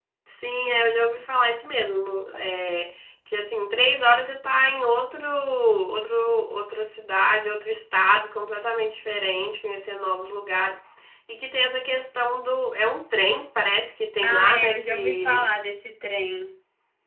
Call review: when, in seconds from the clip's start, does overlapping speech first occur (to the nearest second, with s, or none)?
14 s